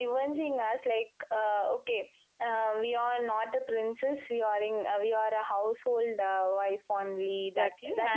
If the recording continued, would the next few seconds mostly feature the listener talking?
Yes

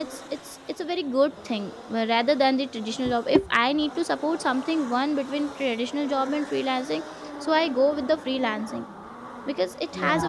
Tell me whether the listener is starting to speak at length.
No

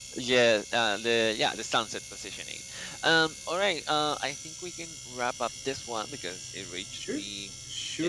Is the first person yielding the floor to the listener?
Yes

